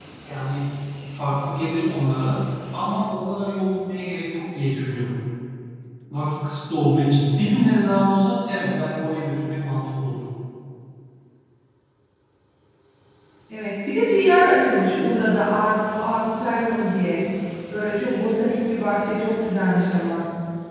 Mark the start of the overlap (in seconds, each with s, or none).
none